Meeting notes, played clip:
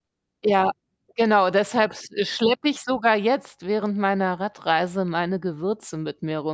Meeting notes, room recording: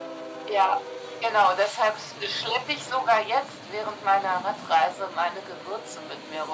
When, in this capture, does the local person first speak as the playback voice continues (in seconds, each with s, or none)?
none